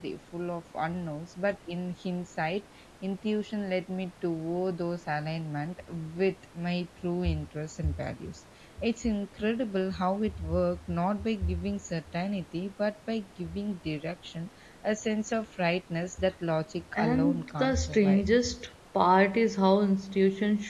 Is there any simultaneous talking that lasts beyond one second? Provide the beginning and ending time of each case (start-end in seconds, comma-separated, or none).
16.9-18.3